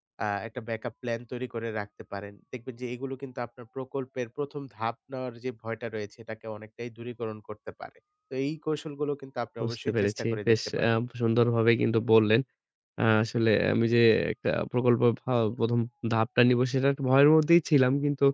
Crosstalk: present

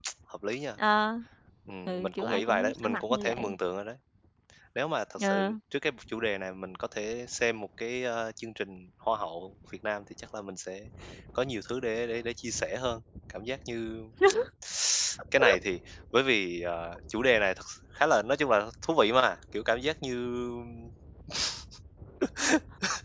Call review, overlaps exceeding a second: present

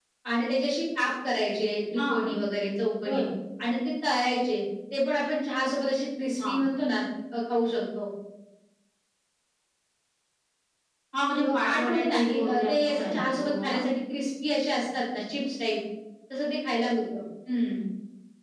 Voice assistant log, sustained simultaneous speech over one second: present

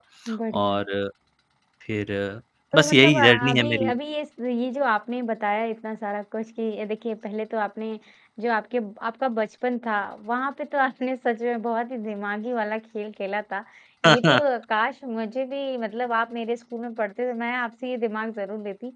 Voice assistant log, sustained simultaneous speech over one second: present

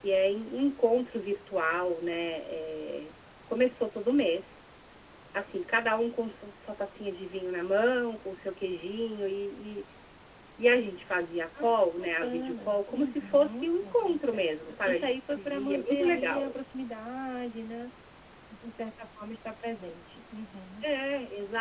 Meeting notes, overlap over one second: present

